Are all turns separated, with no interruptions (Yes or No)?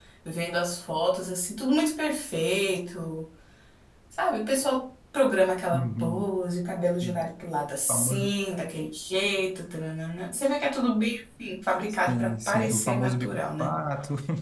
No